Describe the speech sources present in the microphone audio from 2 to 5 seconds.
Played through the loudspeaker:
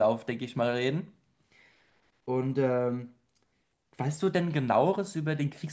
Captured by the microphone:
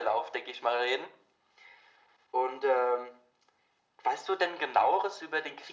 echo only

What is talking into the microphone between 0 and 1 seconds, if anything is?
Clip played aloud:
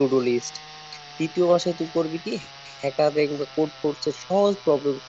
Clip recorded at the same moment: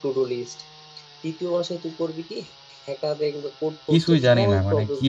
echo only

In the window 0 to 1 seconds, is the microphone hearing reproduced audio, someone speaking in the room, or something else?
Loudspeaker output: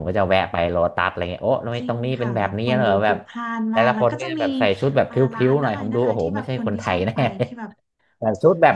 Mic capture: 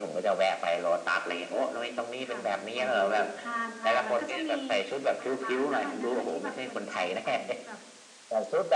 echo only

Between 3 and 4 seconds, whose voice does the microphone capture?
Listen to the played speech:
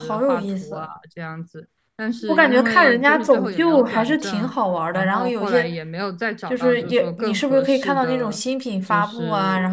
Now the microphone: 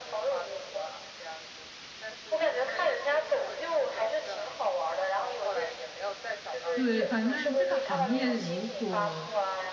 echo only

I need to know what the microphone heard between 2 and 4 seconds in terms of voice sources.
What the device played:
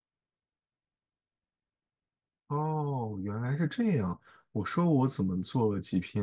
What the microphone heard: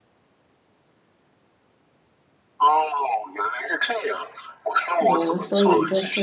echo only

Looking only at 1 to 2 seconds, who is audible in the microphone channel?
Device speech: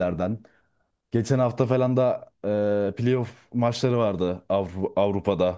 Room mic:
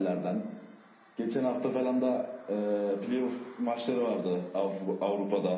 echo only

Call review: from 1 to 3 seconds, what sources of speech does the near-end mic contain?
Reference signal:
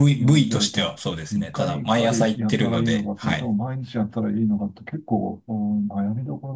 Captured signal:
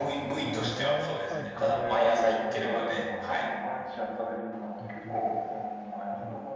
both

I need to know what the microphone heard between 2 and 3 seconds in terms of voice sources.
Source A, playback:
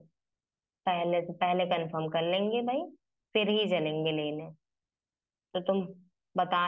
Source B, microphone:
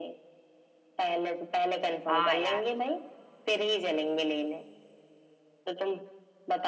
both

